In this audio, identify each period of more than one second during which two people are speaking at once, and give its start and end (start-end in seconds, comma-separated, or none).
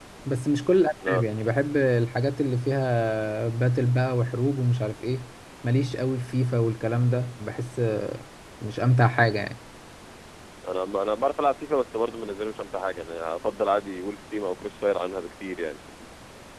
none